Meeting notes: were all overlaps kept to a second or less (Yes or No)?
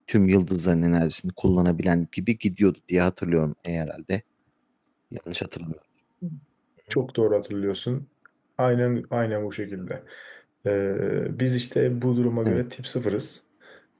Yes